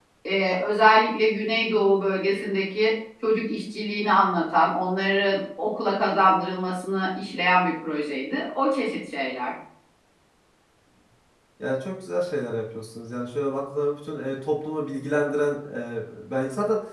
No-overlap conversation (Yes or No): Yes